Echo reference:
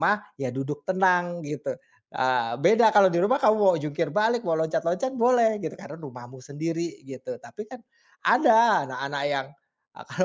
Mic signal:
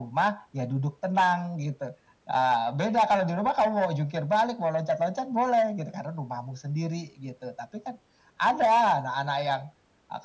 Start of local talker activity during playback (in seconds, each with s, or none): none